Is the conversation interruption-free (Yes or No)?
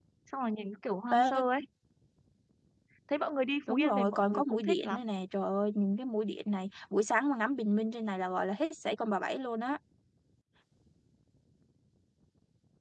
No